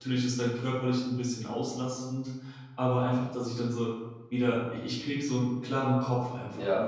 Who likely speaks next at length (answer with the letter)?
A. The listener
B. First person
A